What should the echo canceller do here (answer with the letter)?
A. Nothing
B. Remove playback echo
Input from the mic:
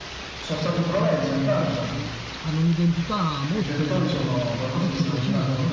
B